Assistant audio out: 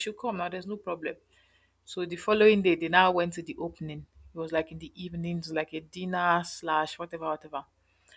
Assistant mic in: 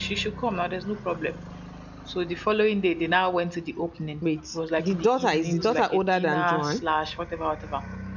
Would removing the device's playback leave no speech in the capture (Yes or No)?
No